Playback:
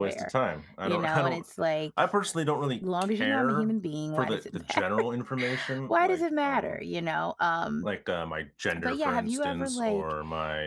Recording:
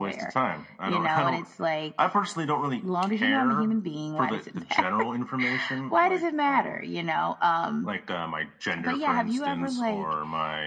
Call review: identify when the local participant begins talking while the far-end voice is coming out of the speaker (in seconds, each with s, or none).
none